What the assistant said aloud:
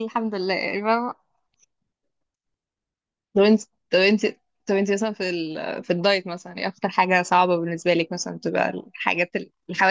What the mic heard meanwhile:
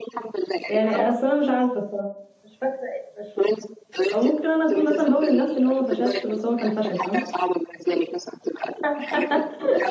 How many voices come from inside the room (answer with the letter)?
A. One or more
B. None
A